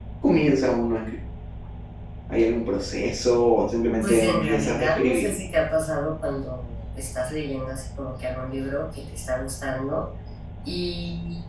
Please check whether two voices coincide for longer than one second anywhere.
Yes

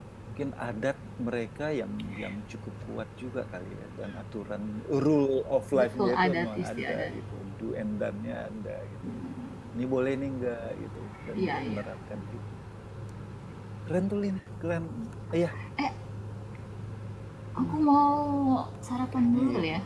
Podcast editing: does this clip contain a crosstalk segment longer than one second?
Yes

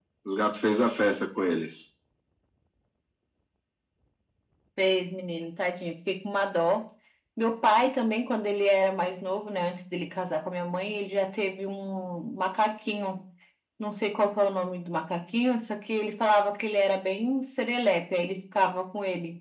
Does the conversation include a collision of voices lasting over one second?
No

